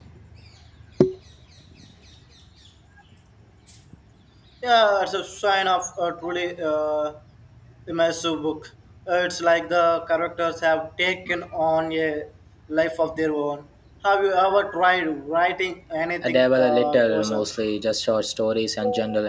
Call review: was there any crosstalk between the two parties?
Yes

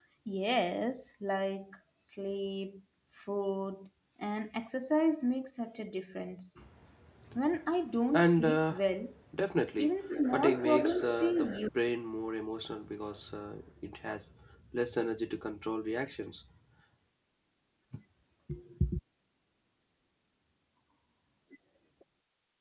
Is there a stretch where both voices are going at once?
Yes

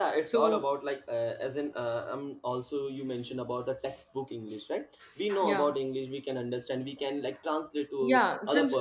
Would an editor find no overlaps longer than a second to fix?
Yes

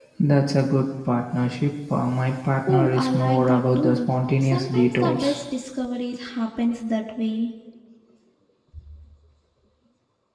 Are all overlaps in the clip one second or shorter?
No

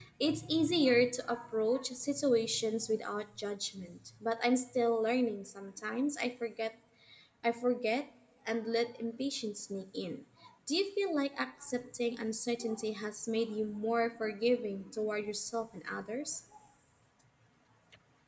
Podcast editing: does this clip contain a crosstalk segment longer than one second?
No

